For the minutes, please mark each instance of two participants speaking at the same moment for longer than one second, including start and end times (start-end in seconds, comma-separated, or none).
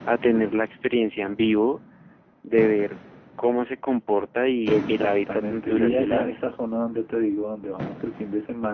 4.7-6.4